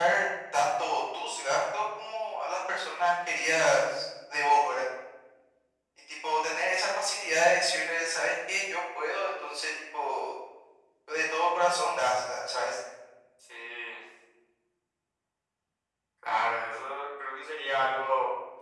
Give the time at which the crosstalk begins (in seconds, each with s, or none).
none